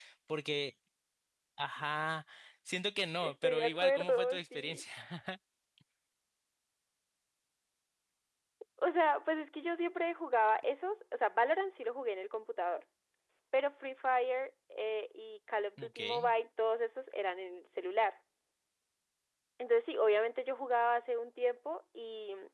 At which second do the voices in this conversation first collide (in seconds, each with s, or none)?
3.2 s